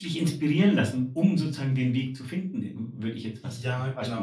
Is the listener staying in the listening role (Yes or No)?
No